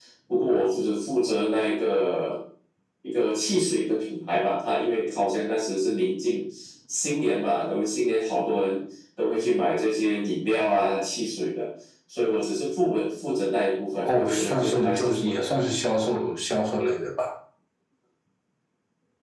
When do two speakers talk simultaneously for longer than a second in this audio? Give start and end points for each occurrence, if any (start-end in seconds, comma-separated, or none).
14.1-15.4